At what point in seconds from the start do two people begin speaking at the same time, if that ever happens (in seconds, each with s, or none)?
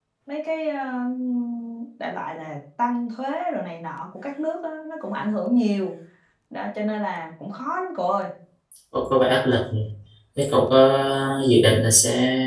none